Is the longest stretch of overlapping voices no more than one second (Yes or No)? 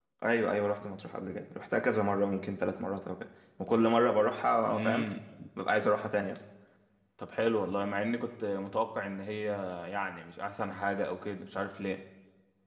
Yes